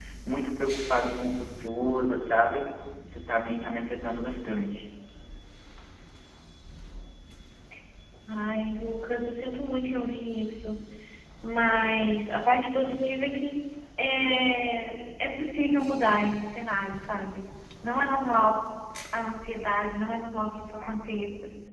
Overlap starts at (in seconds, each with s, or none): none